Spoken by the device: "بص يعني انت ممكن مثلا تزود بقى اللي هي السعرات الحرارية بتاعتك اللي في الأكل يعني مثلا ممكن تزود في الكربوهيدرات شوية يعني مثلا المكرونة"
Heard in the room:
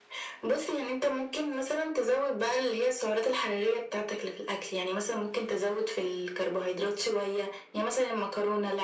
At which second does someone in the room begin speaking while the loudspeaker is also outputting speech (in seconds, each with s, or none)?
none